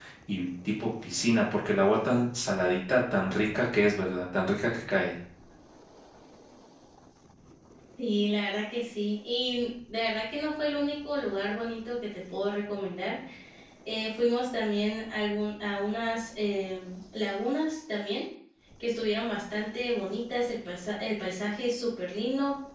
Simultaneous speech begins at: none

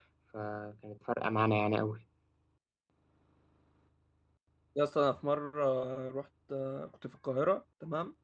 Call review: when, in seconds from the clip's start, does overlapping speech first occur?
none

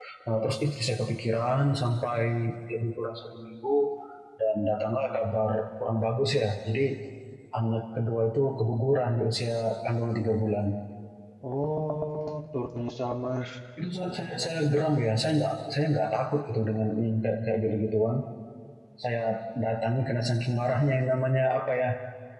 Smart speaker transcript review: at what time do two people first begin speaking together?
none

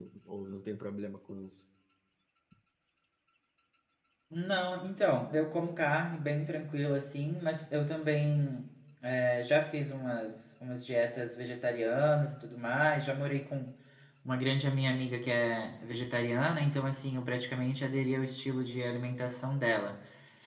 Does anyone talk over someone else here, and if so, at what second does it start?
none

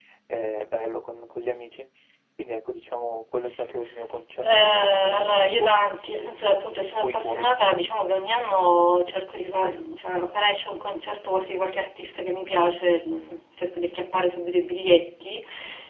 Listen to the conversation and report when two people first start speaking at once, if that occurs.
4.4 s

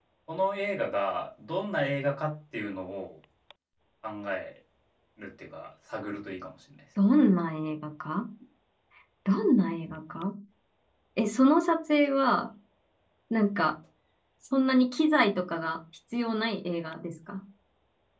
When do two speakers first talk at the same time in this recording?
none

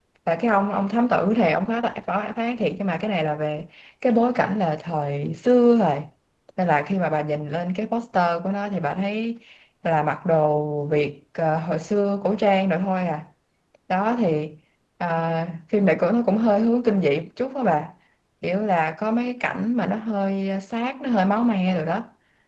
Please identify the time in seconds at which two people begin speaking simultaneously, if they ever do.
none

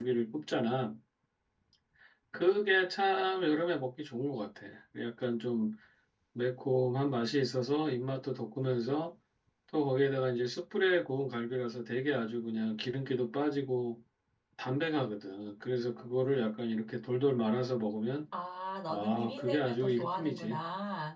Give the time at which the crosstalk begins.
18.9 s

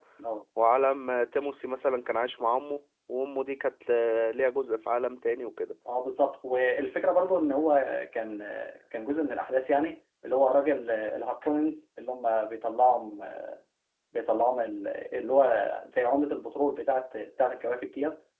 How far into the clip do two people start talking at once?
none

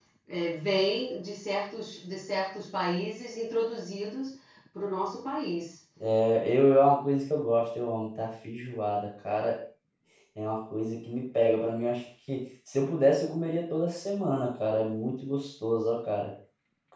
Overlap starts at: none

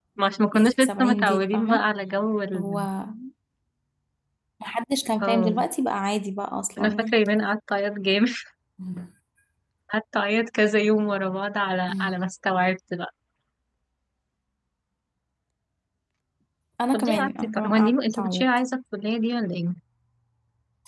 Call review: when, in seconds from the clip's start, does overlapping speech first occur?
0.5 s

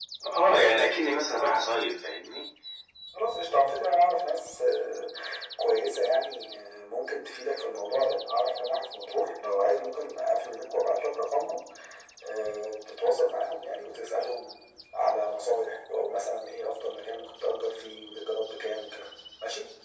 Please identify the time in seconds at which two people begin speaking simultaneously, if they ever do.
none

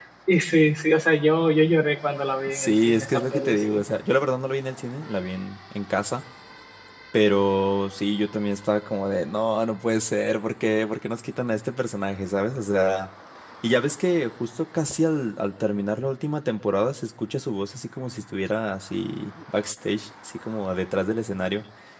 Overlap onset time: 2.5 s

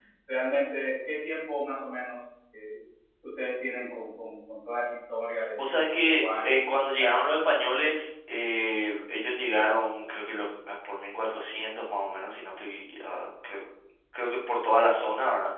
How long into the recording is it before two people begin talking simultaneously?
5.6 s

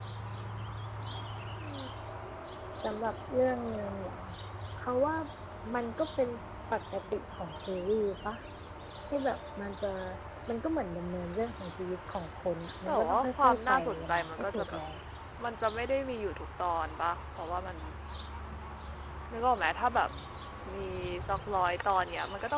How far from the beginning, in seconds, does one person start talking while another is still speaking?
12.9 s

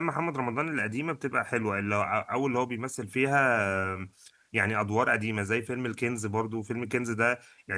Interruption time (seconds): none

